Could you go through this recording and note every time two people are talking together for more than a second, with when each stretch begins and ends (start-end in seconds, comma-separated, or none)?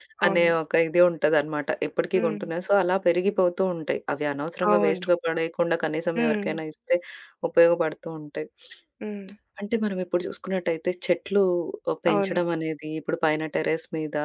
none